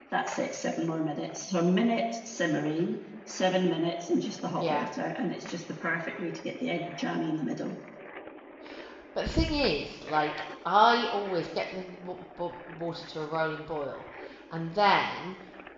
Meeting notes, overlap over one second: none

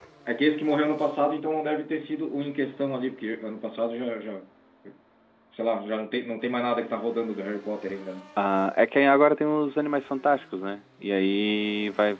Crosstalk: none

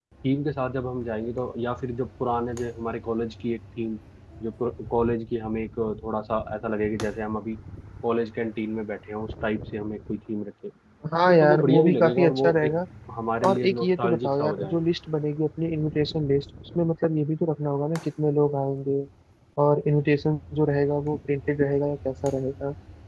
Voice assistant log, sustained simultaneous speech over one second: present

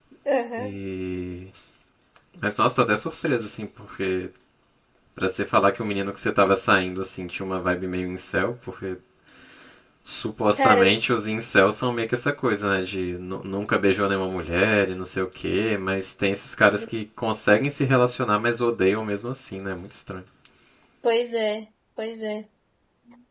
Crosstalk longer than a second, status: none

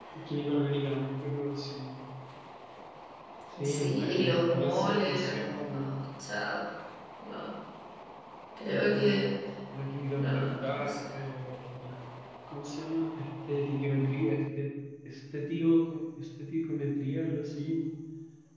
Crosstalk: present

